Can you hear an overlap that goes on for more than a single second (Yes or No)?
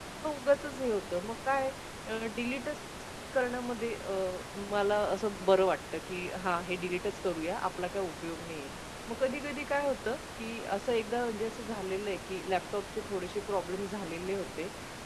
No